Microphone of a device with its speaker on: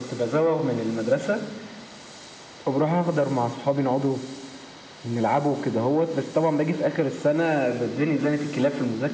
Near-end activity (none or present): none